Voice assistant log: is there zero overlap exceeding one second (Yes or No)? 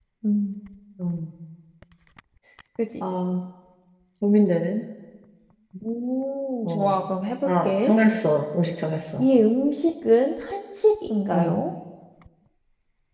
Yes